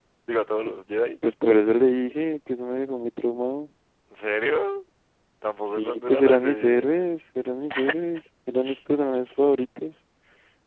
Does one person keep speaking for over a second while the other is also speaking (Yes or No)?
Yes